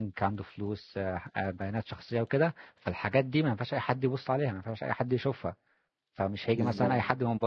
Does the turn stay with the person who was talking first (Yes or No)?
Yes